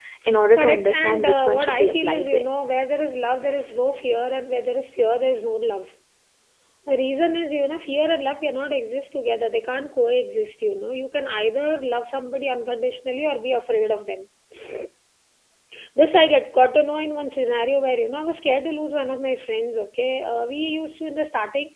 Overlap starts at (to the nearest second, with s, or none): 1 s